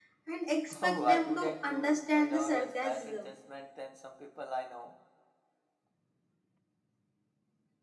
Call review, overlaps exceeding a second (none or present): present